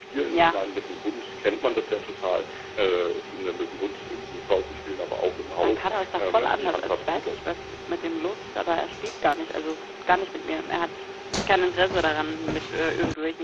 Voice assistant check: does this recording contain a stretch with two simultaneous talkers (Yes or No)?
Yes